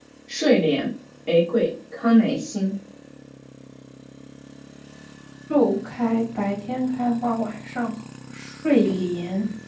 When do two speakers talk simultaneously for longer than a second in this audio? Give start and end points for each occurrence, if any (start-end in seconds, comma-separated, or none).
none